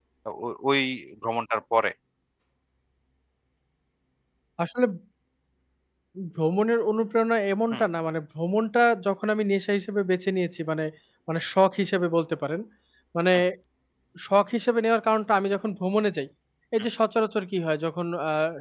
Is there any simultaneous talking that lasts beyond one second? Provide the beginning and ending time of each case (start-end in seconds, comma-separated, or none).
none